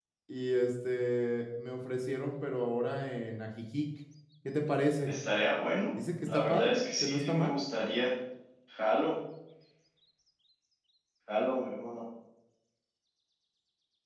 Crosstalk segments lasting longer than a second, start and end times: 6.2-7.6

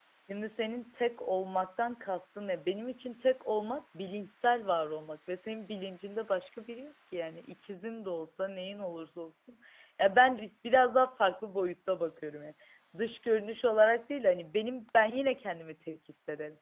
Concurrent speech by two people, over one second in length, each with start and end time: none

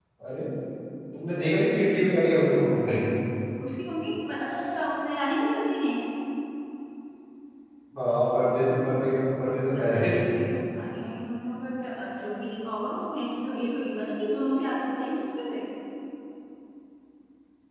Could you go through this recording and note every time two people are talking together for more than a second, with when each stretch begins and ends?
none

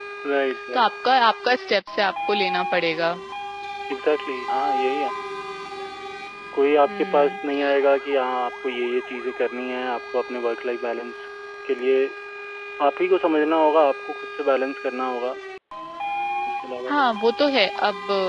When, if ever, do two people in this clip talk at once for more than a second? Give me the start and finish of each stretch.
none

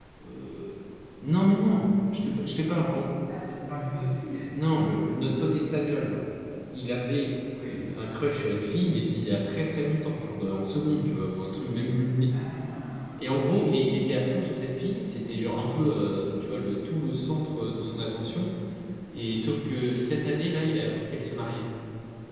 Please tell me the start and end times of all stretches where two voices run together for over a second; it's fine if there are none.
none

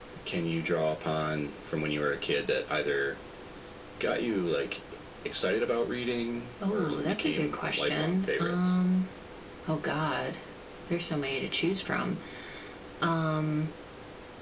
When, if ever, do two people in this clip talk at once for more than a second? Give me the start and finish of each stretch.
6.7-8.7

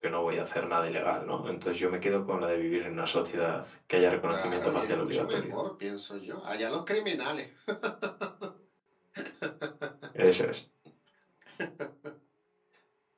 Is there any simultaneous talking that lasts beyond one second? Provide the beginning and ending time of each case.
4.3-5.5

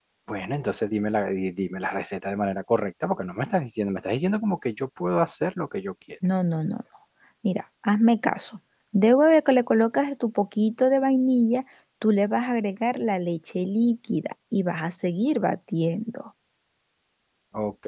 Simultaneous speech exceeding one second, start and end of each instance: none

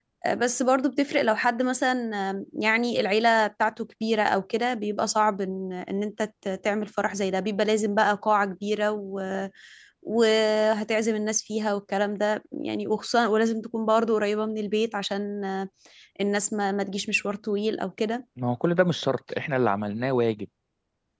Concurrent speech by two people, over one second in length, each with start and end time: none

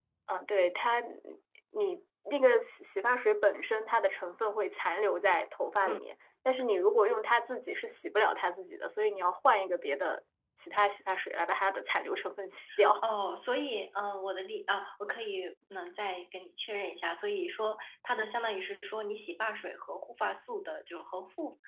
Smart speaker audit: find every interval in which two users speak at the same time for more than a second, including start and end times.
none

